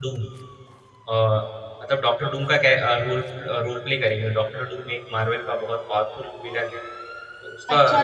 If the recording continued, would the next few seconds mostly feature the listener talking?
Yes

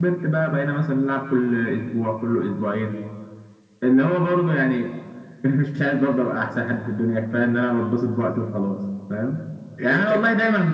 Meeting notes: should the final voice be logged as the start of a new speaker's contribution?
No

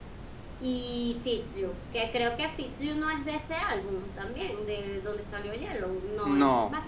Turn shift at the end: Yes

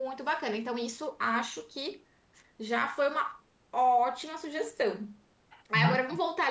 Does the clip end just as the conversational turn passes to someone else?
No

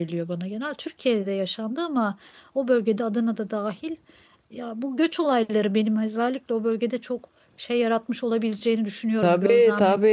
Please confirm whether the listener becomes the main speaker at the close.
Yes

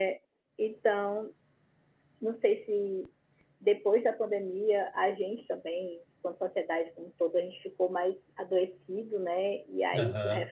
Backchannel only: Yes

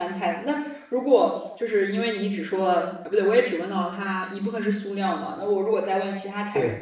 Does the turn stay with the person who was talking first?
Yes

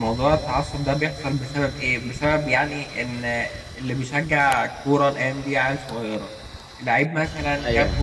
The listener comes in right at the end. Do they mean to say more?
No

